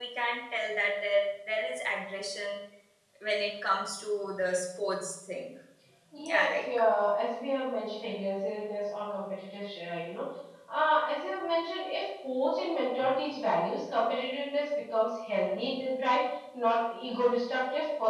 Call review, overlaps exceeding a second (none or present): none